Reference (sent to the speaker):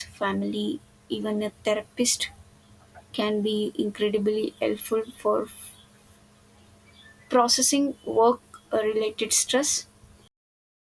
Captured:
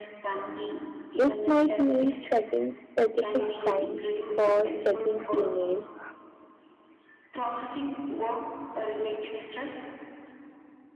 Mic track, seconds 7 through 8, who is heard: echo only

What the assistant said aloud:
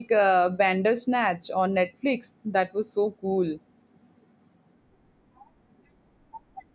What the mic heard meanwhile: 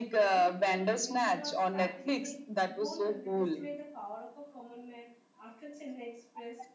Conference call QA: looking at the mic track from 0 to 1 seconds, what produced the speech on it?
both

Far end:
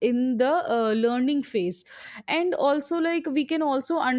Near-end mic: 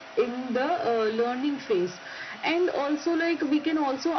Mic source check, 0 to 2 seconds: echo only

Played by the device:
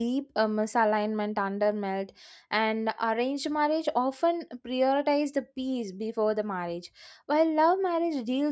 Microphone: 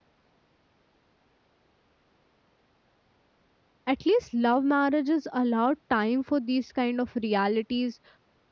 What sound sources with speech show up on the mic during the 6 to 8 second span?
user only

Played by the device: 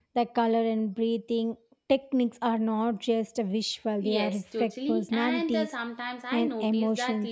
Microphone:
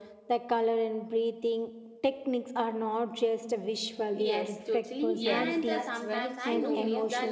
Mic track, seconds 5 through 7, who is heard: both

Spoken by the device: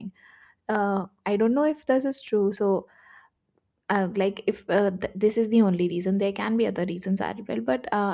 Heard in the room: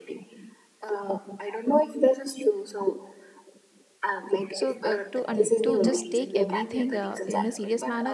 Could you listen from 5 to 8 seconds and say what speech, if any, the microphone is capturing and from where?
both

